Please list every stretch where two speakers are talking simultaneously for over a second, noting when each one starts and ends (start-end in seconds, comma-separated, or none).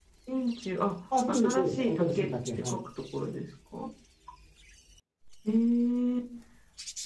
1.3-2.8